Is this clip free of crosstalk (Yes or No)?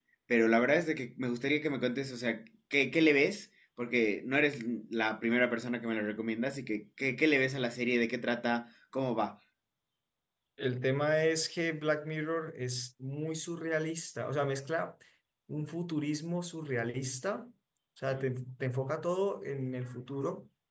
Yes